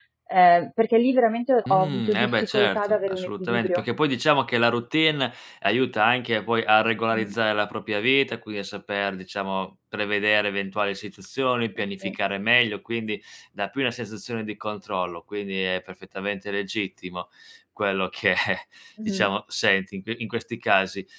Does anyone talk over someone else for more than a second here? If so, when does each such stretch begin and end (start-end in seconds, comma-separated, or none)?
1.7-3.8